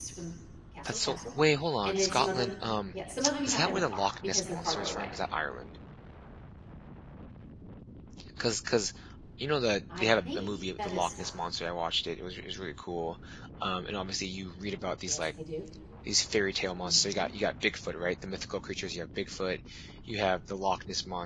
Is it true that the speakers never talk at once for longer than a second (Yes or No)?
No